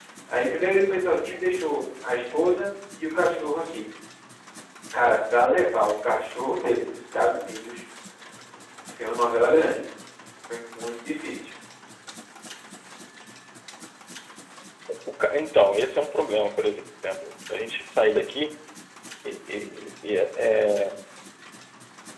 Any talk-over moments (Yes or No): No